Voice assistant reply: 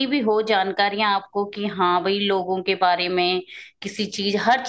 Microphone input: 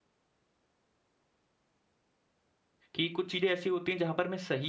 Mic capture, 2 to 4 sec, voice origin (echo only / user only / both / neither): user only